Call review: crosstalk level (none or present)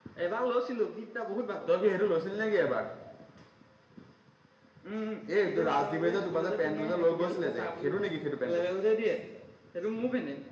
present